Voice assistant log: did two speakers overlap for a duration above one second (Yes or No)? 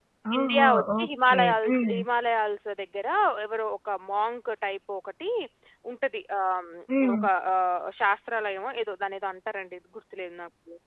Yes